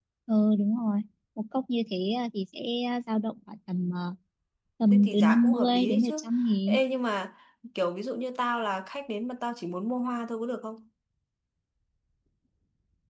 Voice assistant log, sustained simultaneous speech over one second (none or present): present